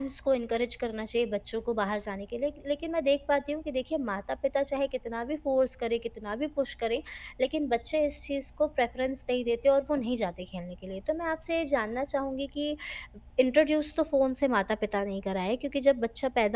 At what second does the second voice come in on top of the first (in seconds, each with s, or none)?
none